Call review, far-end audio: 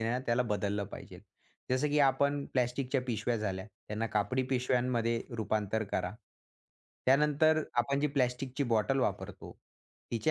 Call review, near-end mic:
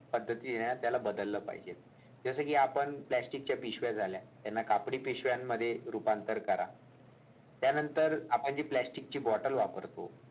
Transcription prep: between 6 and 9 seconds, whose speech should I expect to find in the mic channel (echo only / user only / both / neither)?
echo only